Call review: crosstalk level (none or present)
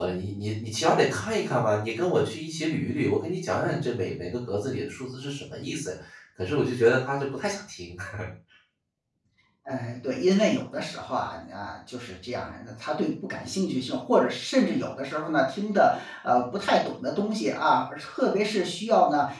none